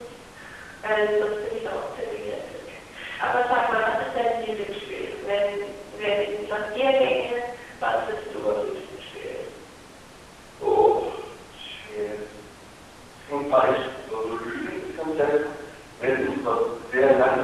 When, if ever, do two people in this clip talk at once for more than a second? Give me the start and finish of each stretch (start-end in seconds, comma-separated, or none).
none